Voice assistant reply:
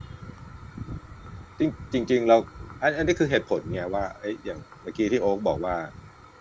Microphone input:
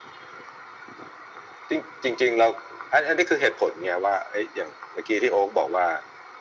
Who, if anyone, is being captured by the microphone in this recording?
echo only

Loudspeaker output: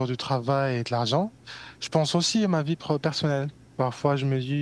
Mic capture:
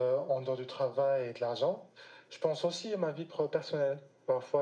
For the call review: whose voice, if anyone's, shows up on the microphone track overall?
echo only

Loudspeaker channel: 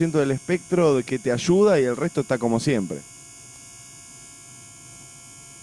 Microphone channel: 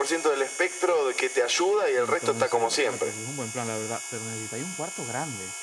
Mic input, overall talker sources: both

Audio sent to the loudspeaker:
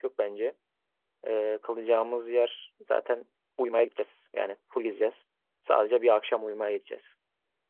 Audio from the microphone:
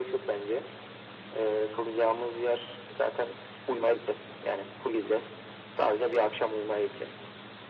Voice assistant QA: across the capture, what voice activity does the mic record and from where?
echo only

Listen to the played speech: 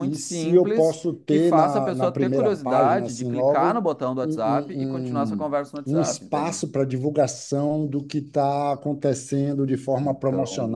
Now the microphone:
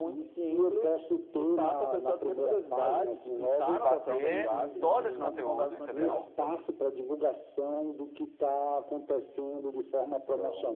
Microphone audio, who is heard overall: both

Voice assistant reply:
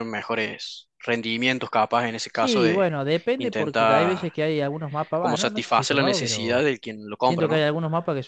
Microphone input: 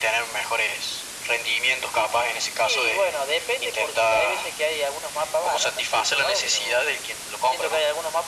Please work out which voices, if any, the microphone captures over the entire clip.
echo only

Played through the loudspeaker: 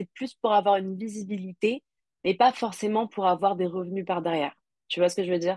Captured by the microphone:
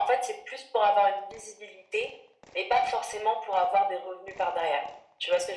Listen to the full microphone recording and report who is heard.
echo only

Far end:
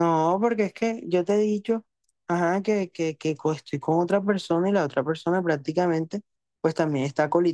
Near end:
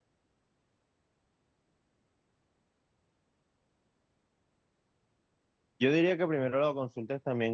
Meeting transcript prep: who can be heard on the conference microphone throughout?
user only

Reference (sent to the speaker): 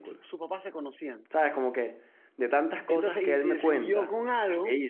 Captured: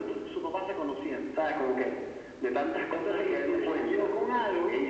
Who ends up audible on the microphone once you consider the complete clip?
echo only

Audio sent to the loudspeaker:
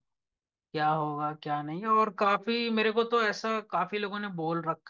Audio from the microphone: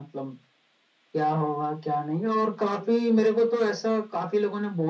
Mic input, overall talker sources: echo only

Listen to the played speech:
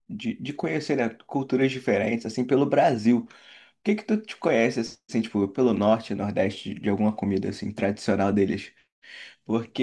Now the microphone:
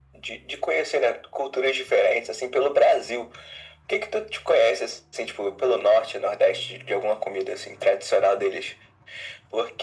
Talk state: echo only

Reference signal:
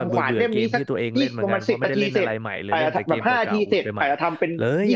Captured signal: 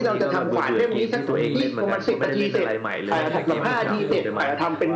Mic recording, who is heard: both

